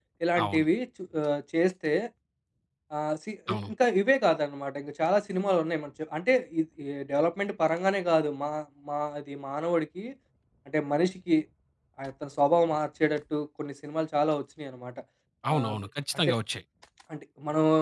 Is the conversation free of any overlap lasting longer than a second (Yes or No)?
Yes